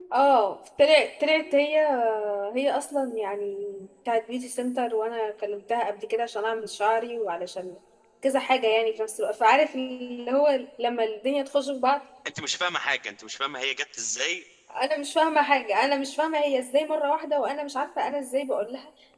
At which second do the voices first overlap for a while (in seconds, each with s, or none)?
none